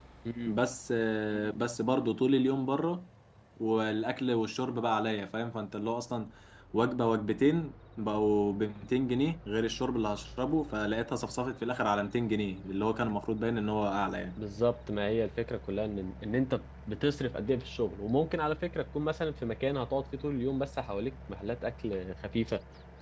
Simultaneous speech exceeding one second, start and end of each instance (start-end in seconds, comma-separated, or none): none